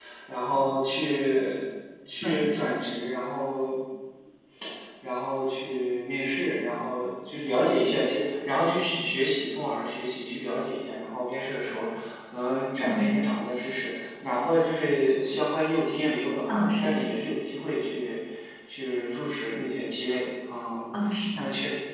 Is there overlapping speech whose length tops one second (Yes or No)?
No